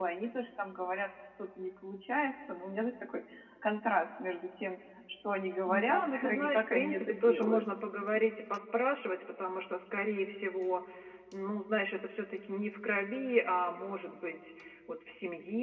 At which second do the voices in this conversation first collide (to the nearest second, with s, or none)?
6 s